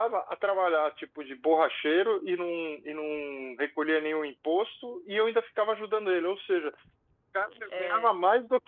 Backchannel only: Yes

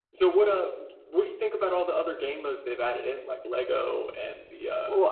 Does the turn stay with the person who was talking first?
No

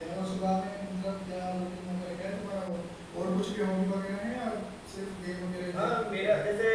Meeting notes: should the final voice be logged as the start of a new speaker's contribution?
Yes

